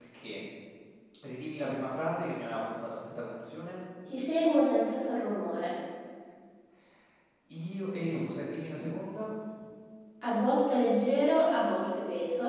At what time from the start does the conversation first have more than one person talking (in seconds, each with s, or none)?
none